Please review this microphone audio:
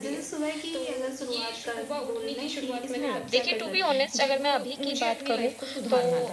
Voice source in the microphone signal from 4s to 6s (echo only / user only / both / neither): both